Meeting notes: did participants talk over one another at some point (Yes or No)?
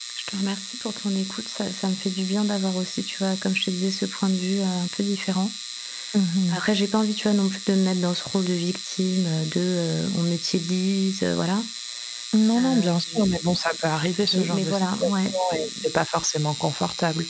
Yes